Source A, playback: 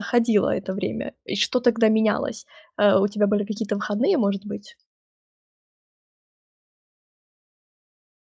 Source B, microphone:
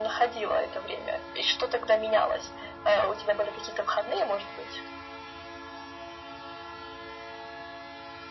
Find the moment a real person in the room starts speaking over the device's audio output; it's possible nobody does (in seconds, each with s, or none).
none